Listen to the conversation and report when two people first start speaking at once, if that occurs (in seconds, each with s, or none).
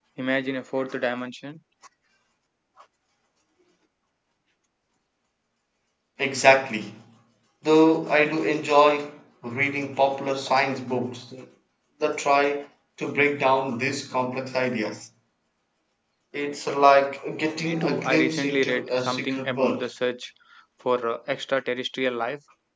17.6 s